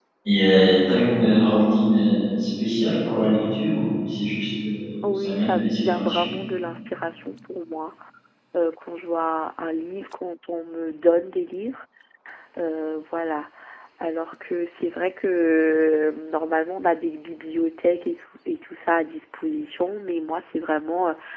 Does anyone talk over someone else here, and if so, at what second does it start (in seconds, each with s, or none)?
5.0 s